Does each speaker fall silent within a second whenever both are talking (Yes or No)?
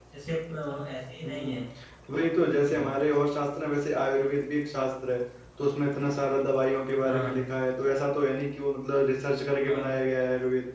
Yes